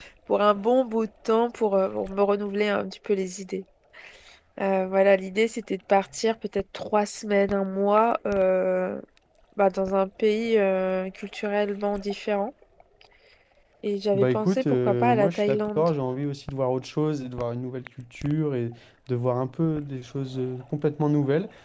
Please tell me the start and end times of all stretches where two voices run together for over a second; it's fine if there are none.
14.1-15.9

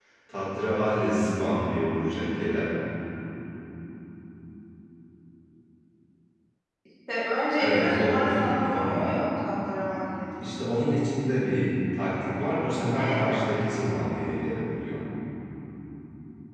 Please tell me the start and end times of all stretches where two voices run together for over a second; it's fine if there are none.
7.6-8.9

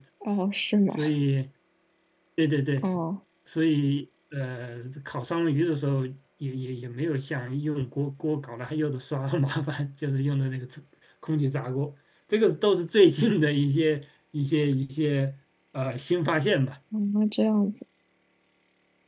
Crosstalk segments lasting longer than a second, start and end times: none

